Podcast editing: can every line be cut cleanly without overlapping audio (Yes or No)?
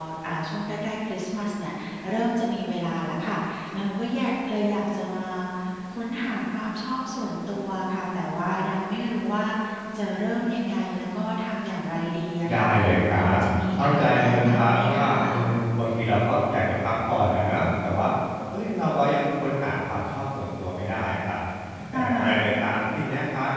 No